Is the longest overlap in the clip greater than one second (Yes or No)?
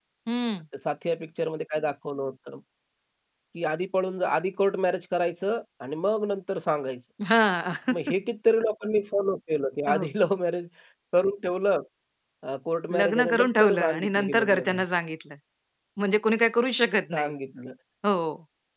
Yes